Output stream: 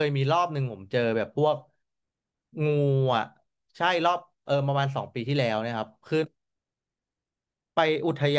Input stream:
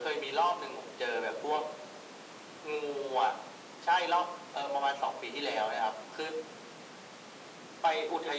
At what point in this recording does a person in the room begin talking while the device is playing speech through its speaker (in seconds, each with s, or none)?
none